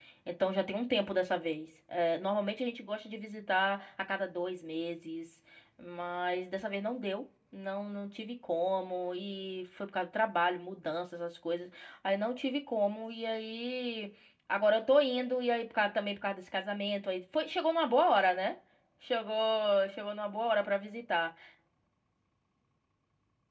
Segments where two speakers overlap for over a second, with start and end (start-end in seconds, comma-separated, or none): none